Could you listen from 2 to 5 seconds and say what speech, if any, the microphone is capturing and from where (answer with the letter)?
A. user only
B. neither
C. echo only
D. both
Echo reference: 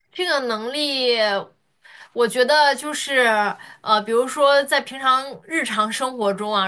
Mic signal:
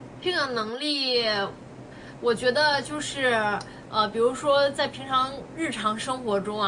C